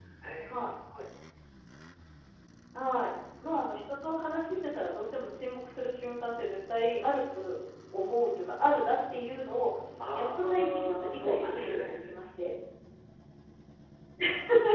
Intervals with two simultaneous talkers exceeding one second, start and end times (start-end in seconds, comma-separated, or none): 10.1-11.9